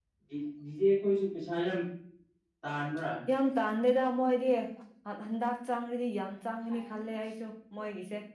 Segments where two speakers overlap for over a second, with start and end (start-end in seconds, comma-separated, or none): none